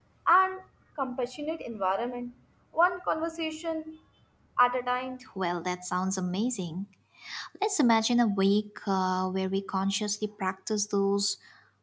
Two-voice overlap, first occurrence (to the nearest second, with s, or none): none